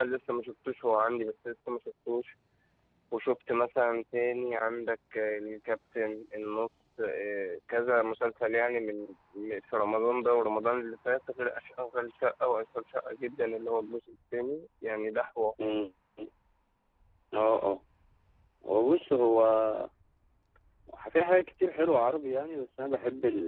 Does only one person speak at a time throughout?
Yes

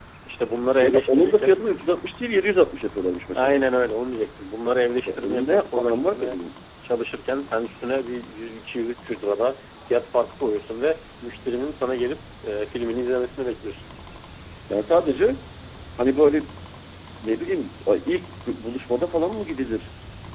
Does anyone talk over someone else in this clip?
Yes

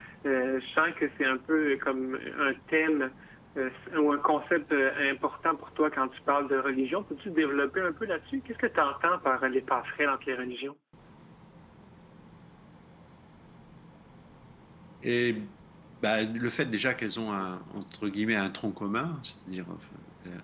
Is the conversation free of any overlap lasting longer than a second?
Yes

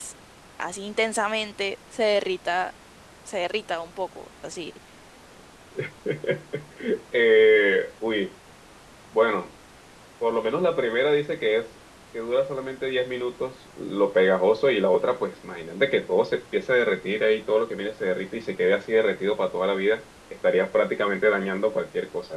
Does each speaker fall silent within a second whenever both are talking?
Yes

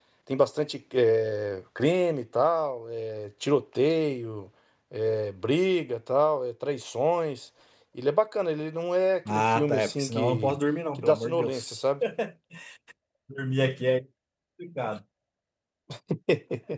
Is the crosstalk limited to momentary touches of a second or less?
No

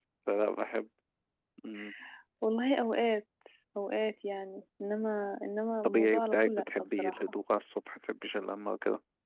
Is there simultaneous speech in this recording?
Yes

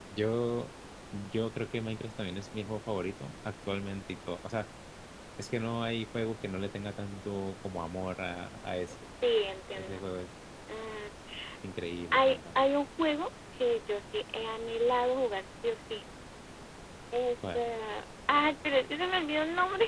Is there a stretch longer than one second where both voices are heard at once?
No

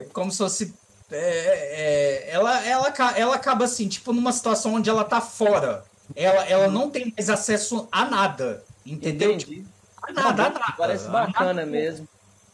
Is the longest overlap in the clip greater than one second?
Yes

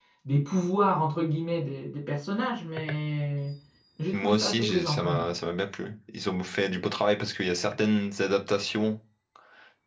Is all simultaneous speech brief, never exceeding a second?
No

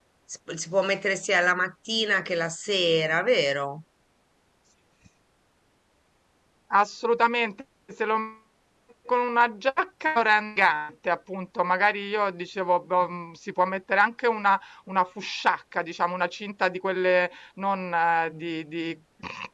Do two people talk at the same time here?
No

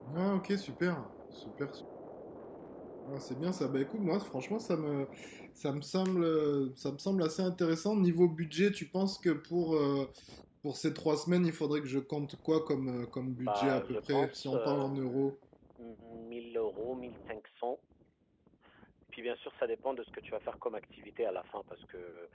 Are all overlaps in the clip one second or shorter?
No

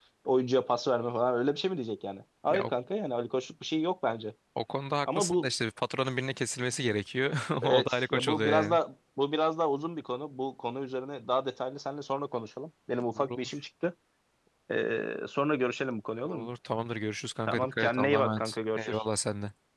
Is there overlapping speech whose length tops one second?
Yes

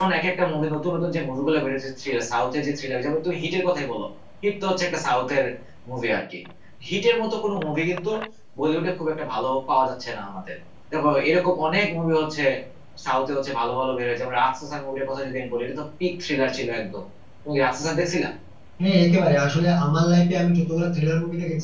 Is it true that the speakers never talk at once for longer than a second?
Yes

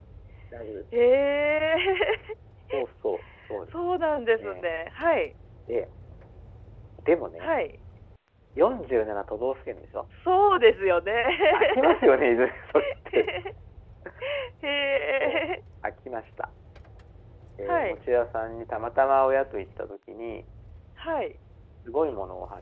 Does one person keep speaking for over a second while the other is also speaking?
No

